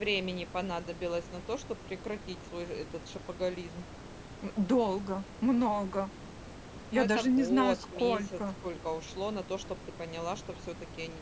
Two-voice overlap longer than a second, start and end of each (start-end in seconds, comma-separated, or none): 6.9-8.4